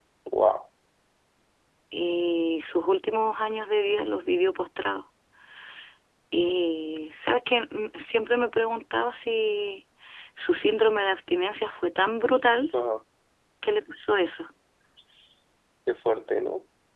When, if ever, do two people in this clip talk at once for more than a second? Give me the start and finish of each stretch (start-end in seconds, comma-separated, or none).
none